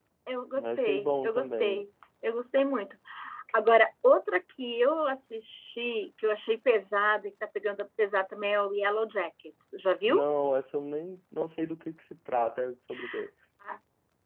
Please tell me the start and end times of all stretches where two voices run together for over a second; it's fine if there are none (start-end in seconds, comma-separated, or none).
0.6-1.8